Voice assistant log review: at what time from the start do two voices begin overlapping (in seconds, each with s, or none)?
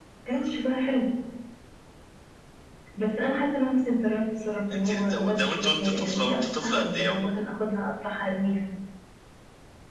4.8 s